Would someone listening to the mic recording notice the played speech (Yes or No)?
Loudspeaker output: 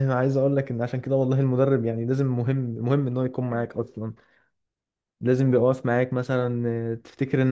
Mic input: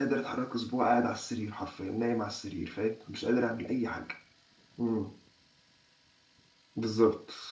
No